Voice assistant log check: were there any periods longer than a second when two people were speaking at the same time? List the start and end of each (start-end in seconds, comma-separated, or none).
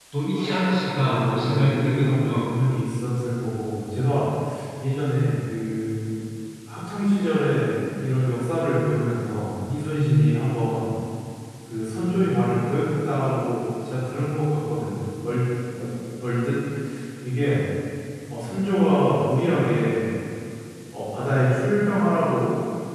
0.8-2.5